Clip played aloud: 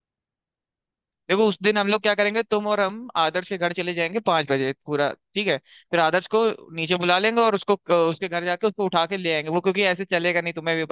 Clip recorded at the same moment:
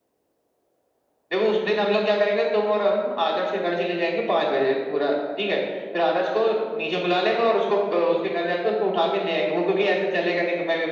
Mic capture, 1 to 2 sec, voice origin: echo only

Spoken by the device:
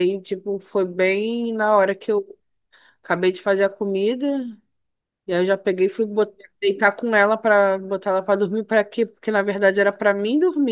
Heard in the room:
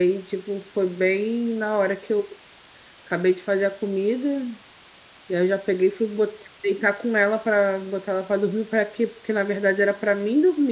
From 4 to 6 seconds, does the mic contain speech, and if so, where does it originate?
echo only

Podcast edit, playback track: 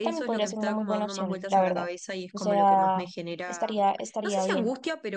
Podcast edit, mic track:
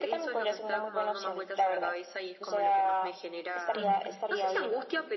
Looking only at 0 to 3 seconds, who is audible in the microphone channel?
echo only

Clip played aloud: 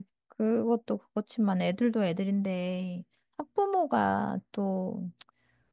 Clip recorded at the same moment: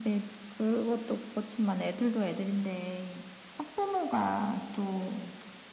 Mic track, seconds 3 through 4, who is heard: echo only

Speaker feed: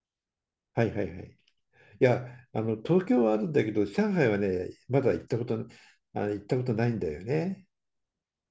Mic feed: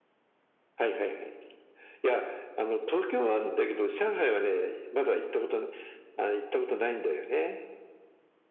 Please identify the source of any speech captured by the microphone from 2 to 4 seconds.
echo only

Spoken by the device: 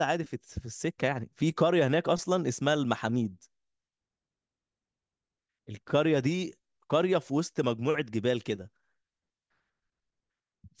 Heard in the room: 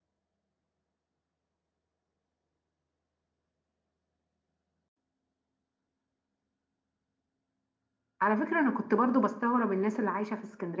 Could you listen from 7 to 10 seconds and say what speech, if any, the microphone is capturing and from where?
user only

